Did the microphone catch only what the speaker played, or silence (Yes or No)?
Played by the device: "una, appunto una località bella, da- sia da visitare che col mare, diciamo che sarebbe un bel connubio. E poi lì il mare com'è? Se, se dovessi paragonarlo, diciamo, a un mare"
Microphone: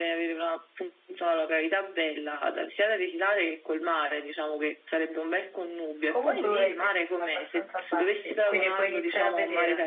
No